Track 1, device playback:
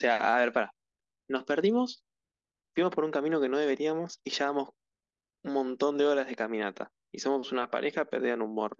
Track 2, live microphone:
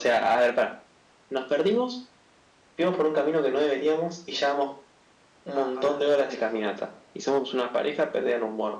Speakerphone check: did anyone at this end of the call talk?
Yes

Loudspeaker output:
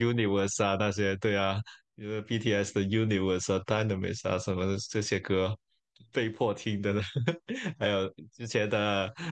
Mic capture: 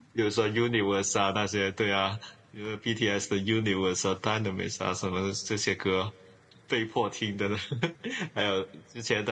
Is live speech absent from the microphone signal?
Yes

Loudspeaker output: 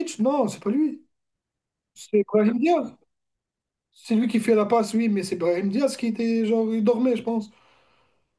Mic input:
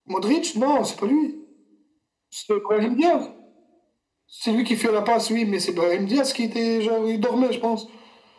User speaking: No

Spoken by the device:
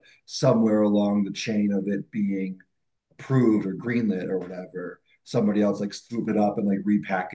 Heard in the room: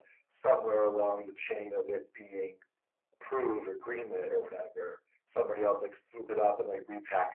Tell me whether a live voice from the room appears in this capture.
No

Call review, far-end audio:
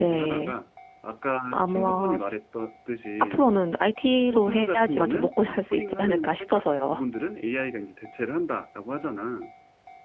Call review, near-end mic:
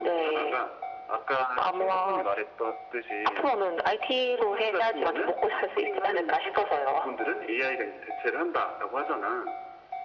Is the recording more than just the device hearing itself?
No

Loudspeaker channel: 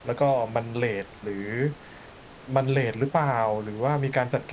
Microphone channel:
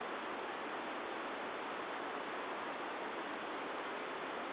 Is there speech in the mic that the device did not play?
No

